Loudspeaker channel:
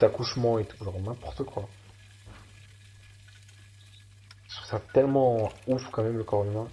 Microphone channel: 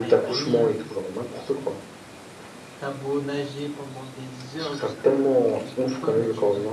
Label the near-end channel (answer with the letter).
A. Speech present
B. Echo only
A